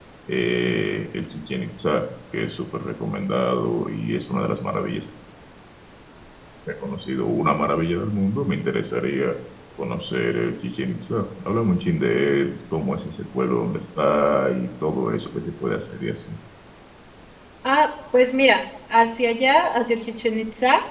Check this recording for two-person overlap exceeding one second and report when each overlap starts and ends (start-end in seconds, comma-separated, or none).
none